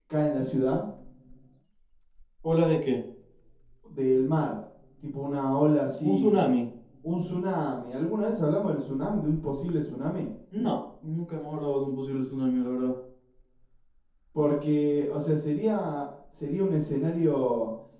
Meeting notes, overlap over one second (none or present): none